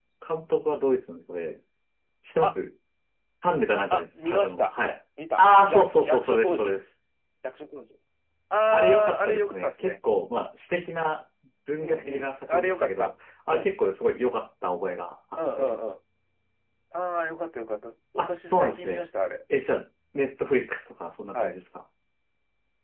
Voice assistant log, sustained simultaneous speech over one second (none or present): present